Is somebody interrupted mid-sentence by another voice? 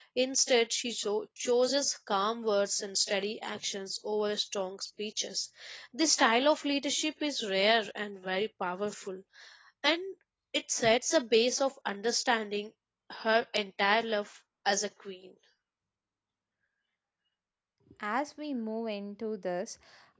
No

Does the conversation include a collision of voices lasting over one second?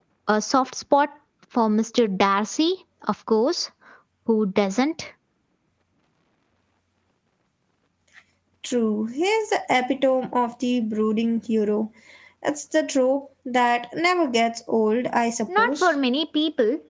No

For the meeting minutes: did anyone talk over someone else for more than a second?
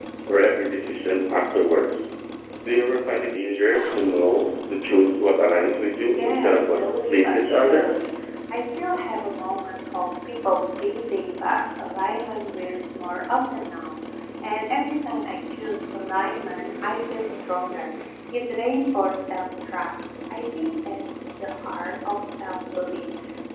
Yes, from 6.2 s

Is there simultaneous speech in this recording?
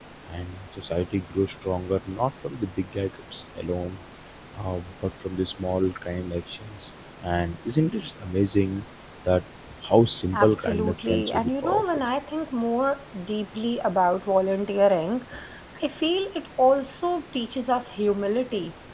Yes, from 10.3 s

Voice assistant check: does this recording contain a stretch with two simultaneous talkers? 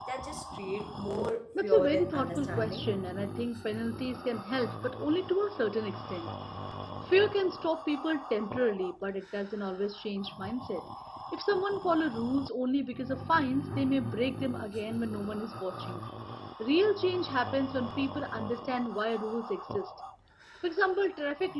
Yes, from 1.6 s

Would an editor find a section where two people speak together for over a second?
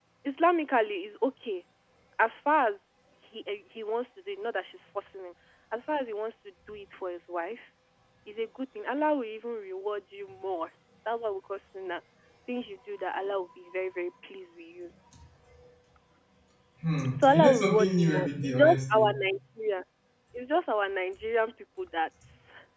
Yes, from 17.1 s

